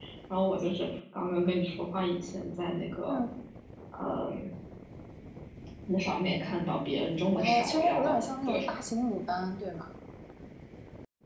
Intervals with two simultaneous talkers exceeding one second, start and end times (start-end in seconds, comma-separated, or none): 7.3-8.6